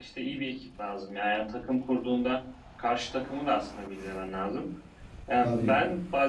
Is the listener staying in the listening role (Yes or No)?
Yes